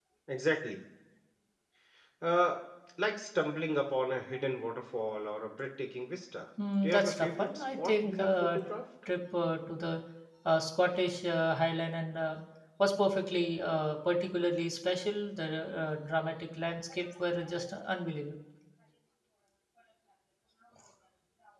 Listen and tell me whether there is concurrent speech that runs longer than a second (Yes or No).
Yes